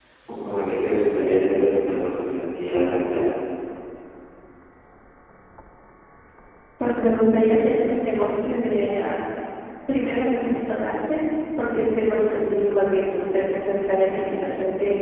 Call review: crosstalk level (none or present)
none